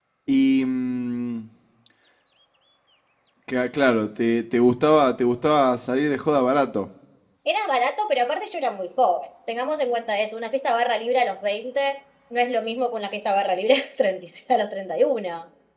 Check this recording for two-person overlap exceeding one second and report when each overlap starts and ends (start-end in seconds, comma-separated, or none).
none